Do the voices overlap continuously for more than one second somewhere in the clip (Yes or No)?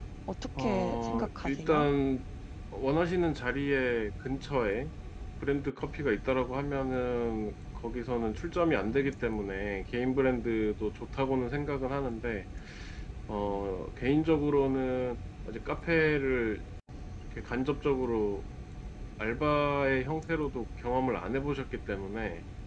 Yes